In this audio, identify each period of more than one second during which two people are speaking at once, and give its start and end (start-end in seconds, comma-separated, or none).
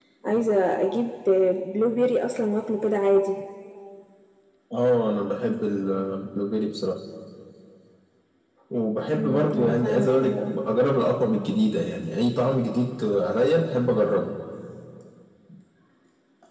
9.2-10.6